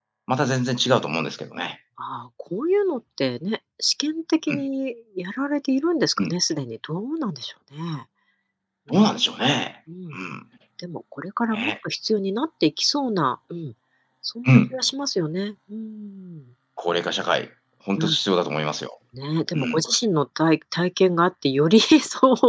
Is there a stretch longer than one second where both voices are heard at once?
No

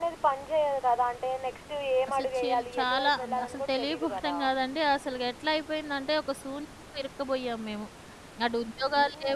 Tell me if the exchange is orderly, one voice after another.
No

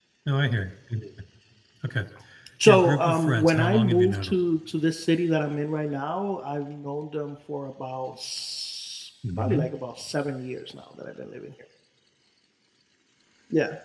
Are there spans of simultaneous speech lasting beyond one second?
Yes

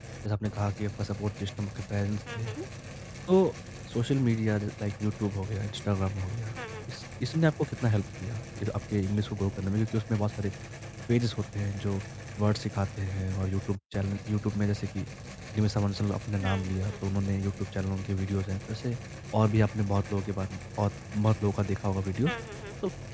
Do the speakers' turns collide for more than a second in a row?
No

